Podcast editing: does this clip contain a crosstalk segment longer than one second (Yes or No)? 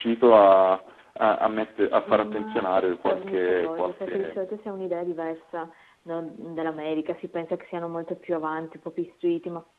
Yes